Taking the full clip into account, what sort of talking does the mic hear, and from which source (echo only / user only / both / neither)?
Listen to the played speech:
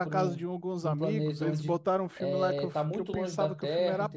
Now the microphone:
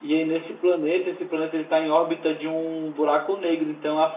user only